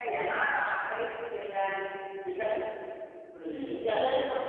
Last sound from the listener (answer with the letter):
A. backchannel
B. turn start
B